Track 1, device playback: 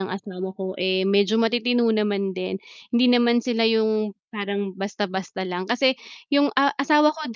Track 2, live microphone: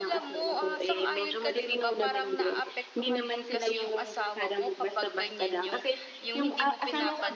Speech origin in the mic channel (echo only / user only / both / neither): both